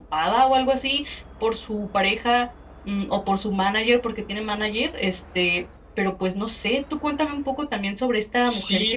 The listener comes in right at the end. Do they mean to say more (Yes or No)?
Yes